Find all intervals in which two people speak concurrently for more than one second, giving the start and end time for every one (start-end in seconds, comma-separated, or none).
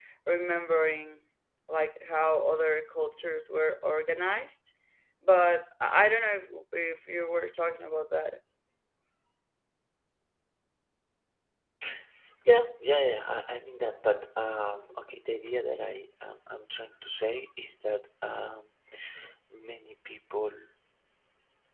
none